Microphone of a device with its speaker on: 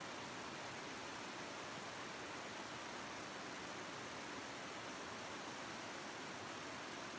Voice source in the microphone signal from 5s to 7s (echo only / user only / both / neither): neither